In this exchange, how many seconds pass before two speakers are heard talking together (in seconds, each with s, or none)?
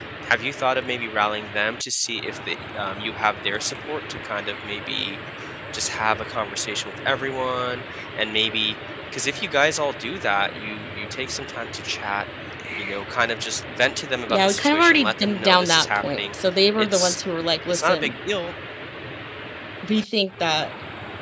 14.3 s